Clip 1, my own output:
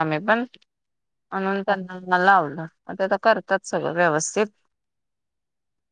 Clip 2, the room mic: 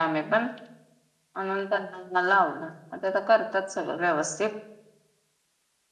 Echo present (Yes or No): Yes